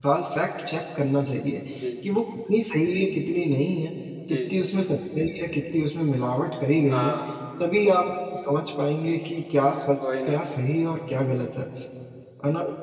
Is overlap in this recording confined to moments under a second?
Yes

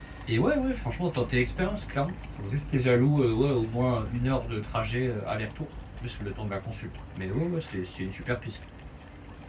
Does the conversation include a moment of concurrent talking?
No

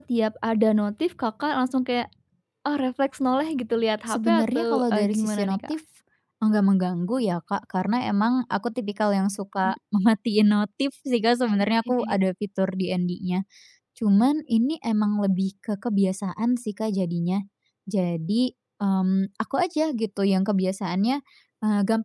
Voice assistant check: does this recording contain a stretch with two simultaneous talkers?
Yes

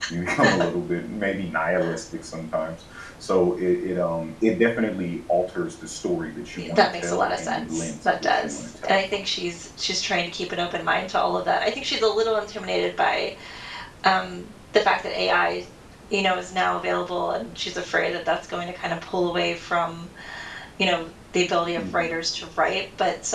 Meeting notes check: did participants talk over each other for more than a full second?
Yes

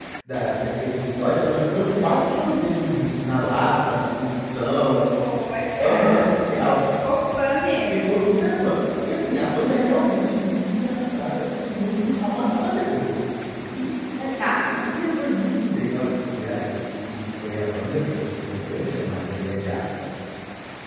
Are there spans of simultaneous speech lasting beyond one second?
No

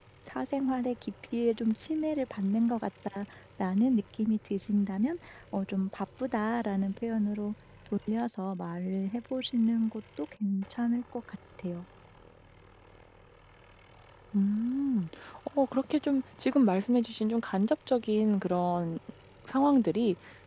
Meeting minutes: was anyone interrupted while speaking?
No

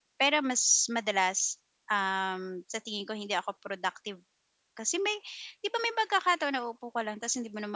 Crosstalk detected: No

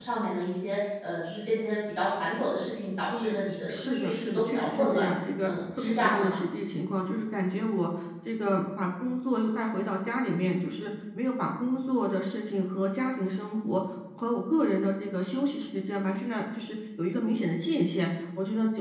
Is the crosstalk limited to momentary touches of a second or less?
No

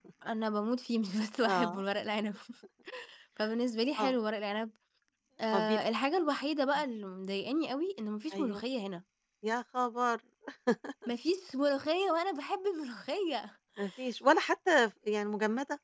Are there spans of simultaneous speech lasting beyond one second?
No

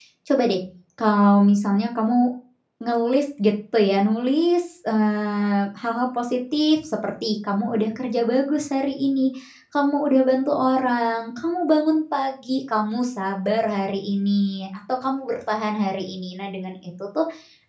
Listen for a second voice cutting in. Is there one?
No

